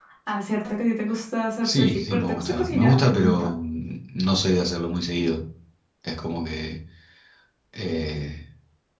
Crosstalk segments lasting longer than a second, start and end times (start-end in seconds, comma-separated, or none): 1.6-3.5